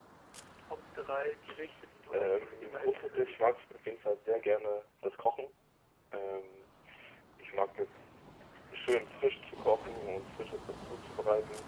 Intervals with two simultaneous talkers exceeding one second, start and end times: 2.1-3.4

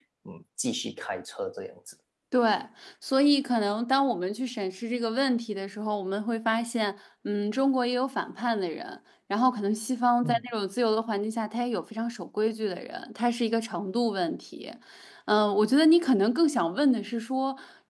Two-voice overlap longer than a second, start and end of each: none

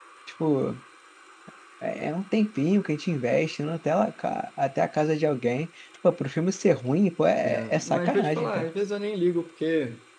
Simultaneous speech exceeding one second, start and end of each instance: 7.4-8.7

